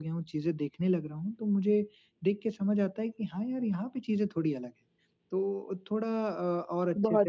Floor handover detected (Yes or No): No